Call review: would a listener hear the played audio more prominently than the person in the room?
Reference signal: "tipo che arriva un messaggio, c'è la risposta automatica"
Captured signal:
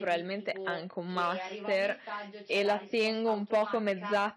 No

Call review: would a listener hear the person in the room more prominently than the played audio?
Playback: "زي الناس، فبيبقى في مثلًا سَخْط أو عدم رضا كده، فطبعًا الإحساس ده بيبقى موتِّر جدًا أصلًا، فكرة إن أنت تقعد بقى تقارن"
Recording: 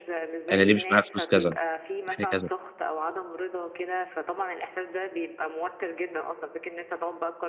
Yes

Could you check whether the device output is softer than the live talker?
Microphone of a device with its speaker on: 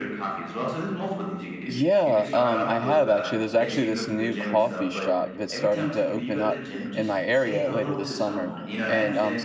Yes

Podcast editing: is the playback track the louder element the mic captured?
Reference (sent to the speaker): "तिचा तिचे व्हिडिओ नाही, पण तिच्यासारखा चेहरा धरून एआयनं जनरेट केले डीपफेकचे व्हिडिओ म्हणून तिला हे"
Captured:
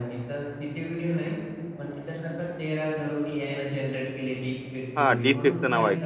No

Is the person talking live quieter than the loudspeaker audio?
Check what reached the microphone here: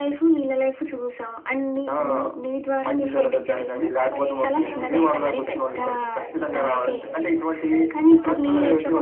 Yes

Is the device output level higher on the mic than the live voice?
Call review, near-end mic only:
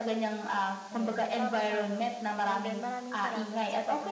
Yes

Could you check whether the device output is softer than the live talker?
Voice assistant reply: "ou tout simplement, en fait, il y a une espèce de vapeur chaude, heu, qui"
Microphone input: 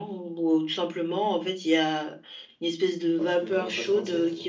No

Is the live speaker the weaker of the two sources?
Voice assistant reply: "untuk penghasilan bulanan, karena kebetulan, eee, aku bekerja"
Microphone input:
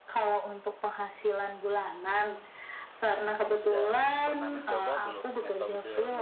Yes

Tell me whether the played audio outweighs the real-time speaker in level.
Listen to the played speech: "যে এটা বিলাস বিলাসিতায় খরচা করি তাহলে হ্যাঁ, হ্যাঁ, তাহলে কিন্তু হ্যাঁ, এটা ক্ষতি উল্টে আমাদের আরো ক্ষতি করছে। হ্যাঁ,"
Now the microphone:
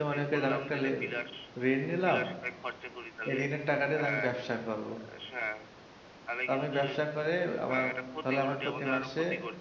No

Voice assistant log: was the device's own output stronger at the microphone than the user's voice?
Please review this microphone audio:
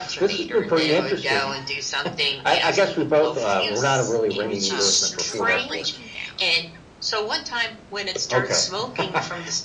Yes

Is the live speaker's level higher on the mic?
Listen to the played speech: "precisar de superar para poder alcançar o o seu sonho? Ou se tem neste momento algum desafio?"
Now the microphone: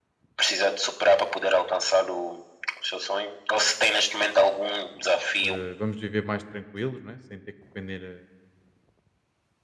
No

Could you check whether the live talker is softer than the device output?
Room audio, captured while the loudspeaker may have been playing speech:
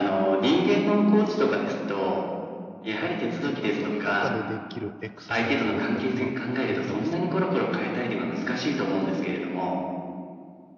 Yes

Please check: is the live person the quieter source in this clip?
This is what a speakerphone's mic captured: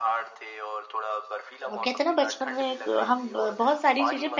No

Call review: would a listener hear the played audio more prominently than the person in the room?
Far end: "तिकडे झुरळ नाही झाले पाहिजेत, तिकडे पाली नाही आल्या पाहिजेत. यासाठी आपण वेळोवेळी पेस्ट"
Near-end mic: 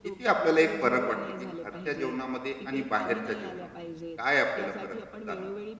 No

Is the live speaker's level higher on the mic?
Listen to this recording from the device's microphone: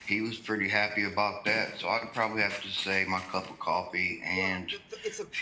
No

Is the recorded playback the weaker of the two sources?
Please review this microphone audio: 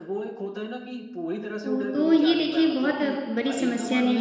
Yes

